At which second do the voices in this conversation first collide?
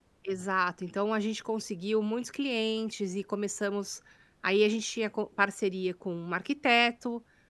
none

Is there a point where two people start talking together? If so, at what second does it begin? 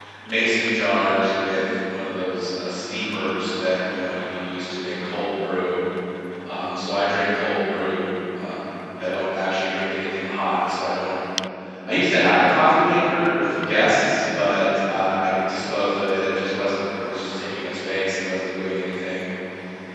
none

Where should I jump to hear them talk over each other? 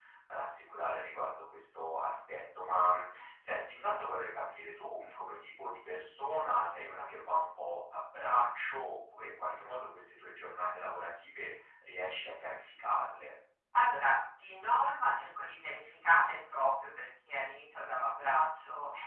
none

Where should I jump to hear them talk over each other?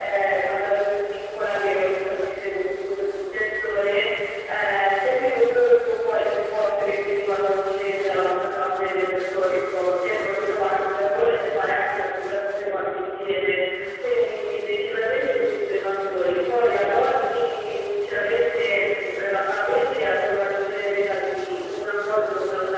none

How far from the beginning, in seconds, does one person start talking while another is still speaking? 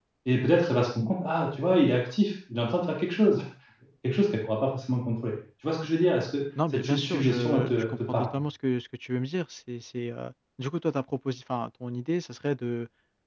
6.5 s

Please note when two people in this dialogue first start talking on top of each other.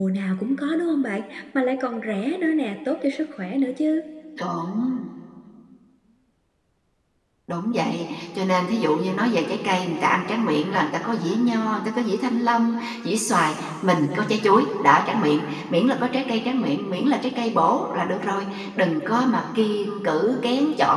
none

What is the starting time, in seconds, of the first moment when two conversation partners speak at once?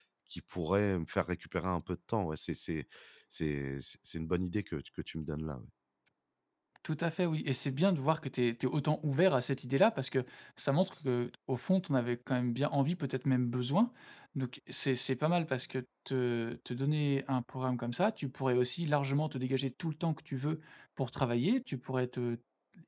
none

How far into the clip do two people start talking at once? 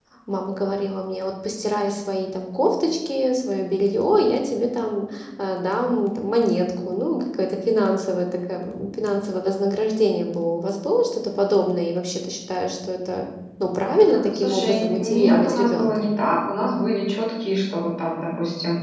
14.1 s

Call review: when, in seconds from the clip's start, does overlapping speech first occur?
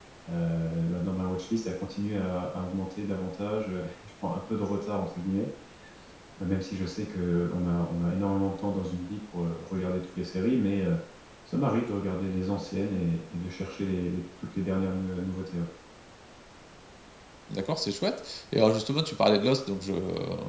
none

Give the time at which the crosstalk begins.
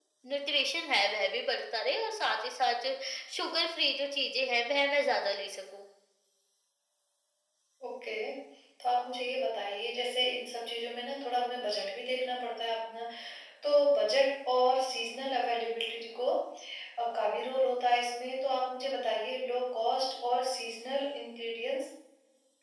none

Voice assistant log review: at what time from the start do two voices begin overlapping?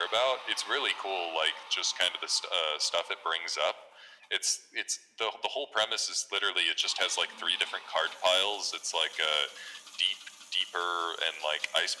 none

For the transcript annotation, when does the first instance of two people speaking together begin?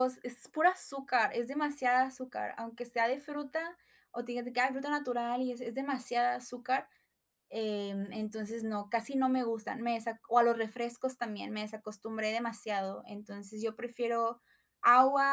none

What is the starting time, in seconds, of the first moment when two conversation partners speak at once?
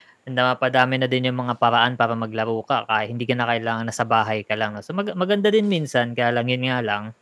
none

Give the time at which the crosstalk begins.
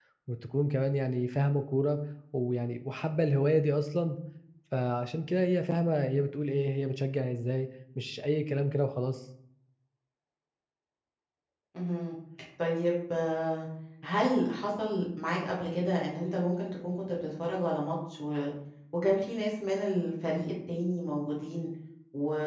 none

